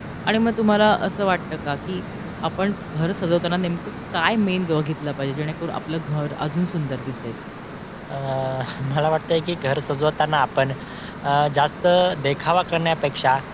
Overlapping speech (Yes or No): No